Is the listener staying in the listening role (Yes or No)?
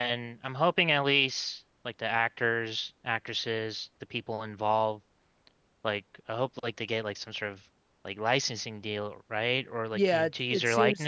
No